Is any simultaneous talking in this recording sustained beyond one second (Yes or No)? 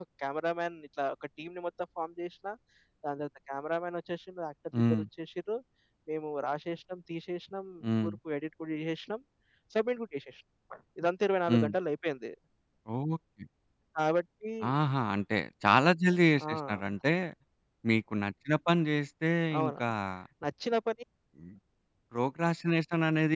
No